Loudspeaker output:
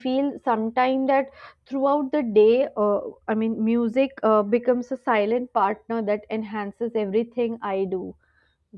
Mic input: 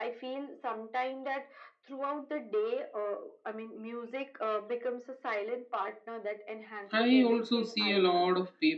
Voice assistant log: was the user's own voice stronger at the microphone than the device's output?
Yes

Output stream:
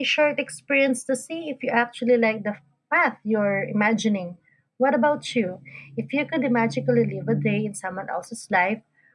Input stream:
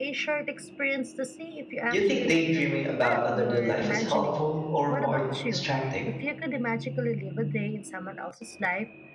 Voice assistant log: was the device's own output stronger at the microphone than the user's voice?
No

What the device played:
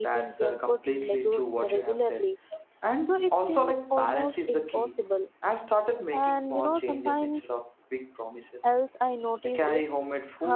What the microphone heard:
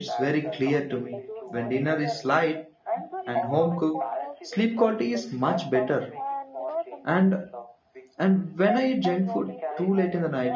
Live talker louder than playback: Yes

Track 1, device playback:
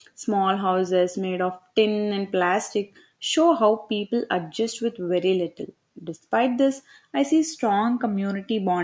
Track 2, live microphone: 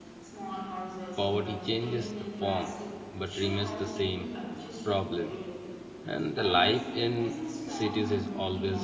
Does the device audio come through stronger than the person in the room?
No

